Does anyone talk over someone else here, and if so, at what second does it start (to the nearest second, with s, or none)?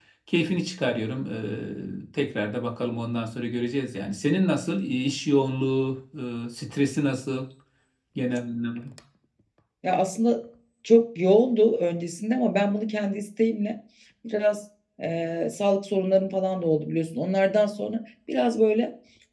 none